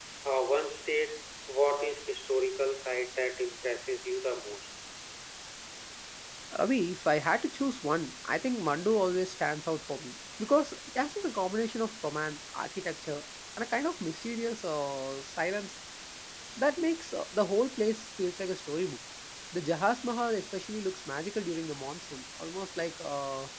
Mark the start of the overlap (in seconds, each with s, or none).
none